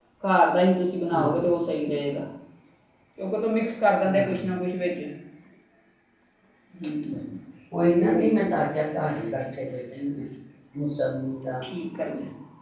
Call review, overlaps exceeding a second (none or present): none